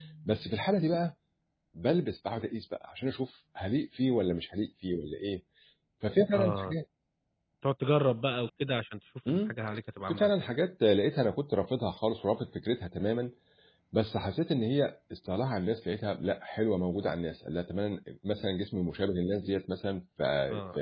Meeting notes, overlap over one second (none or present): none